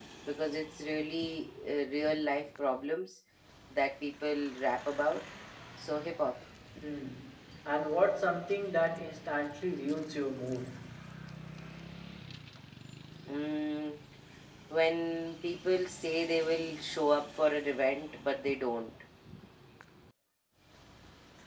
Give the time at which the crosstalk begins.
none

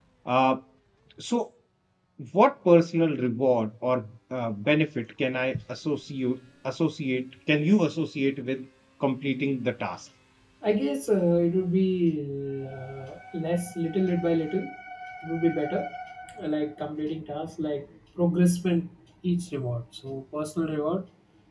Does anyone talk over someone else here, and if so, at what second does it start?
none

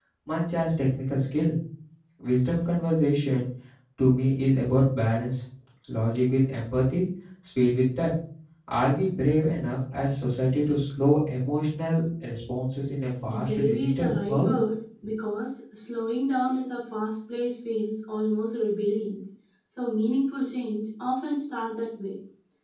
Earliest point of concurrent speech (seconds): 13.3 s

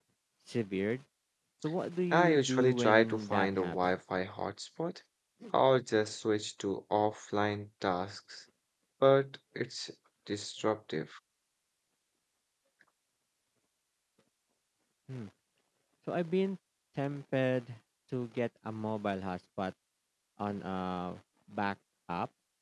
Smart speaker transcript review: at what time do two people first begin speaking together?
2.1 s

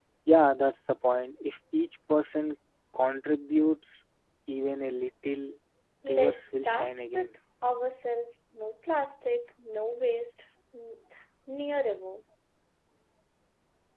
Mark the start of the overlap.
6.1 s

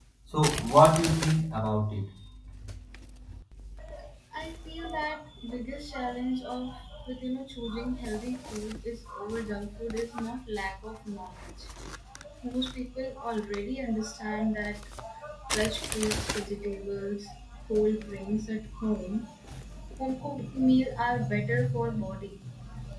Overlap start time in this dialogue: none

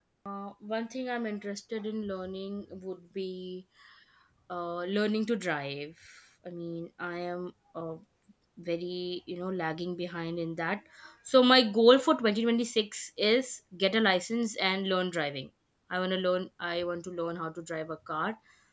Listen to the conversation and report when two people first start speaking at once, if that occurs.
none

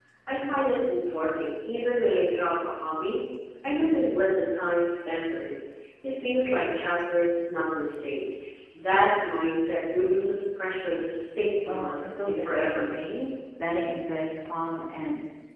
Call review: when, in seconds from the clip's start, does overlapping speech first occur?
11.7 s

